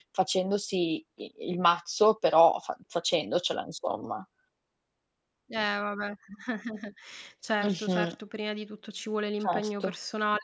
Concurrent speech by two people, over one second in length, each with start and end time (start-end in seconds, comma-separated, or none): none